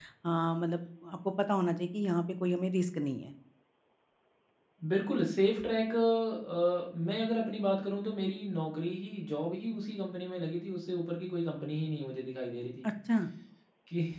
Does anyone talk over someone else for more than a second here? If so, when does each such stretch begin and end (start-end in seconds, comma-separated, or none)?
none